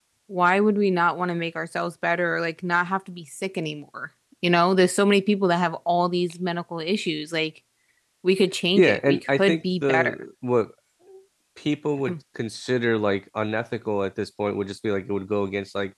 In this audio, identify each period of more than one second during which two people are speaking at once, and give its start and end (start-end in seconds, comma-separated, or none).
8.8-10.2